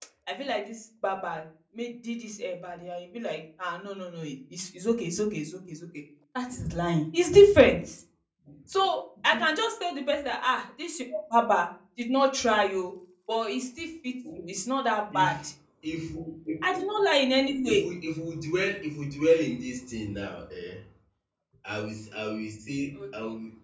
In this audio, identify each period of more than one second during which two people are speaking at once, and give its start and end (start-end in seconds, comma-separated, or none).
none